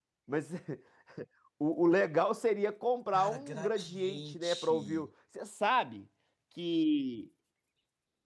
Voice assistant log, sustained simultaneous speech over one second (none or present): present